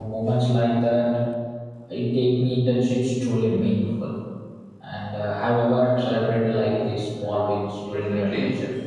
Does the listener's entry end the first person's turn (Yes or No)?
Yes